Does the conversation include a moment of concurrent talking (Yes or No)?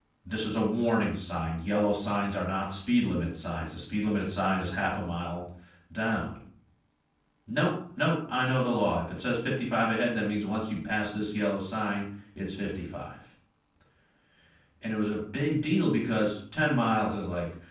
No